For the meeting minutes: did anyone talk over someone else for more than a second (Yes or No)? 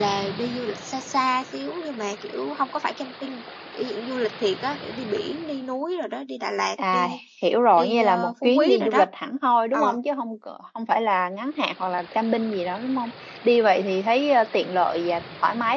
Yes